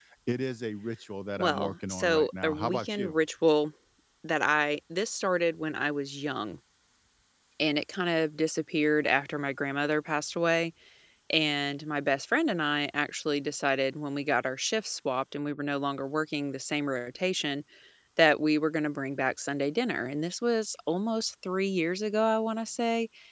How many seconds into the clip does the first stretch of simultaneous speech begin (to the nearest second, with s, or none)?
1 s